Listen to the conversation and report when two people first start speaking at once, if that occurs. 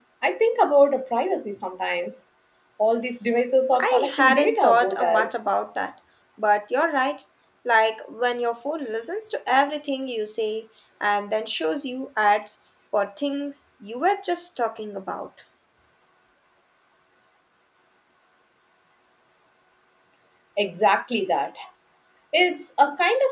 4 s

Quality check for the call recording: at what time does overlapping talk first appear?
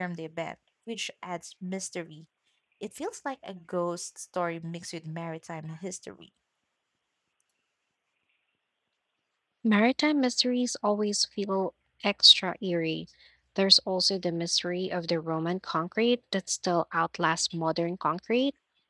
none

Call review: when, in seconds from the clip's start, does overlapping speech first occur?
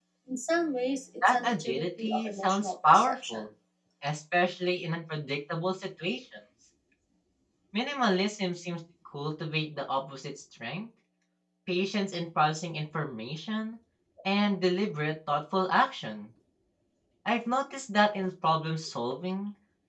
1 s

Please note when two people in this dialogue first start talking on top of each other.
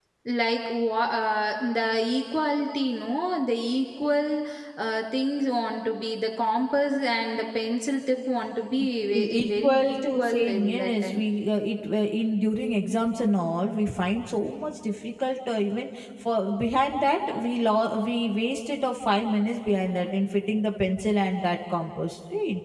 9 s

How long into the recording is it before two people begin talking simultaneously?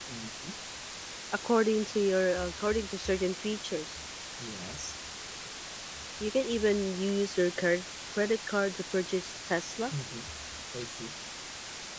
none

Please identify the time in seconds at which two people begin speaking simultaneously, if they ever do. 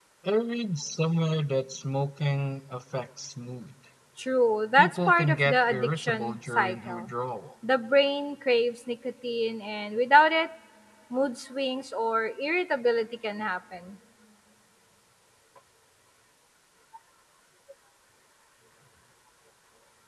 5 s

